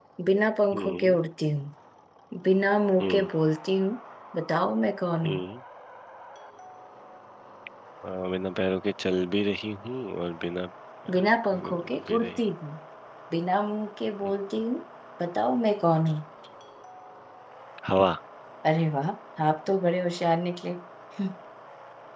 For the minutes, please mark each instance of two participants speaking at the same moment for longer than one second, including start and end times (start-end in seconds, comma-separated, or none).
11.1-12.4